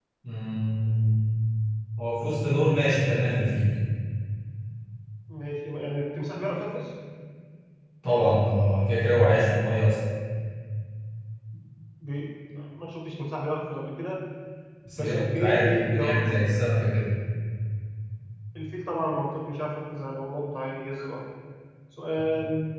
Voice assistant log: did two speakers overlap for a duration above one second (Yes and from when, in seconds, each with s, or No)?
Yes, from 15.0 s